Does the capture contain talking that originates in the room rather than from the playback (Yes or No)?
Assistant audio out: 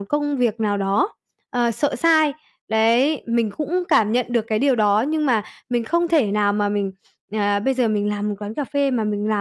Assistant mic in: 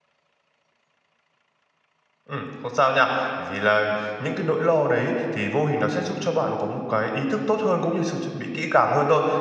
Yes